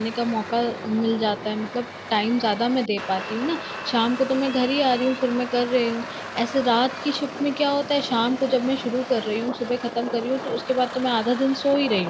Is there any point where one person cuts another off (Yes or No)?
No